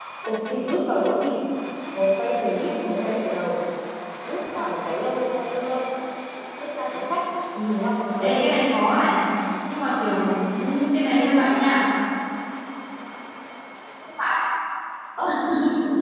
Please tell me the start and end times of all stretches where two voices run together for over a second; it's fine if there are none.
none

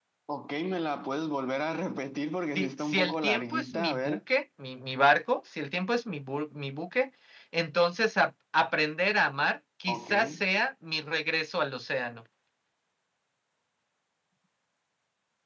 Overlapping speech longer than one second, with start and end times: 2.6-4.2

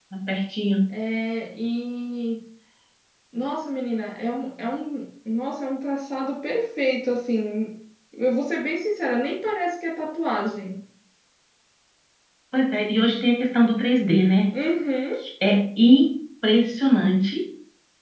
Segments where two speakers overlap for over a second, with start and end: none

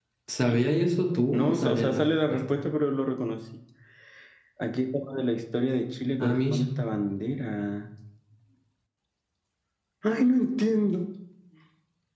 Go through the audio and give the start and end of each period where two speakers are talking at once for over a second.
1.3-2.6

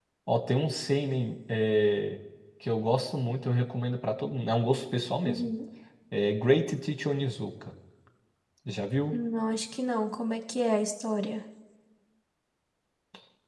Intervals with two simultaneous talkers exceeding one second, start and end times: none

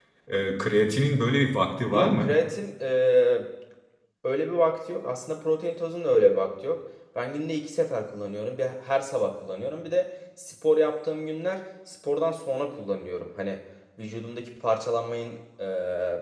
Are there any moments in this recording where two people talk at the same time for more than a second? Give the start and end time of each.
none

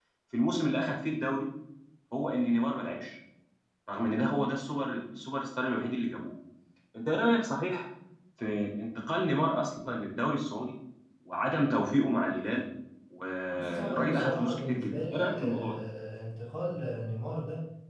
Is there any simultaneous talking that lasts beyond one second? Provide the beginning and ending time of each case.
13.5-15.8

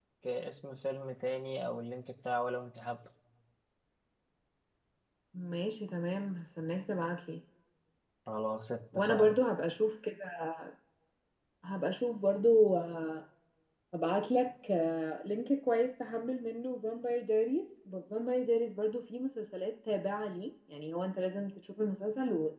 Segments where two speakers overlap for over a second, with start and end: none

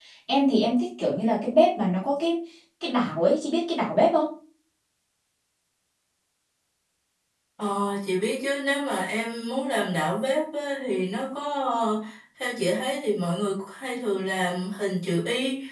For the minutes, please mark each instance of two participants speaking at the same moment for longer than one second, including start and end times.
none

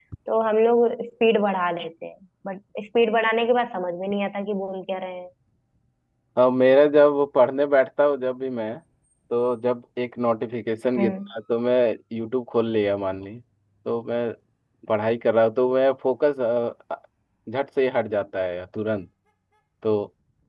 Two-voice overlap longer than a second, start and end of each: none

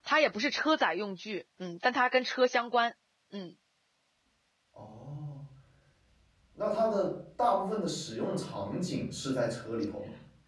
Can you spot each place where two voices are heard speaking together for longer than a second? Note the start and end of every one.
none

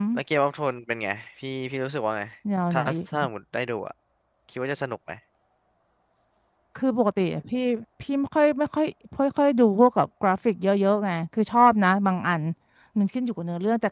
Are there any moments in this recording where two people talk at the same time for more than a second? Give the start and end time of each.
none

